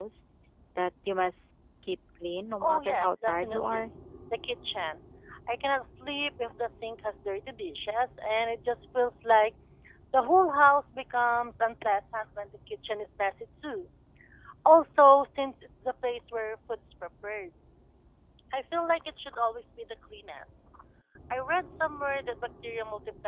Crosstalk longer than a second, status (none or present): present